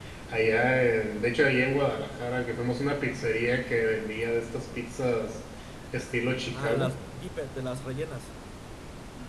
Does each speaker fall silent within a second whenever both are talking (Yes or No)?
Yes